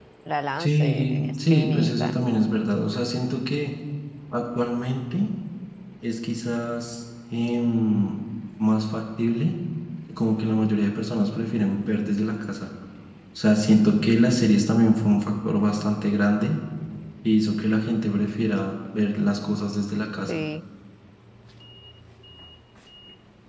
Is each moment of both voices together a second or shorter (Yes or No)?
No